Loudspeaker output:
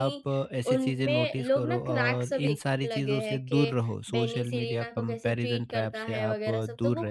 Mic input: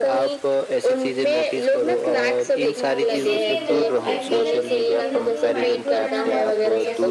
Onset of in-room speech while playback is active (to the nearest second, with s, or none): 3 s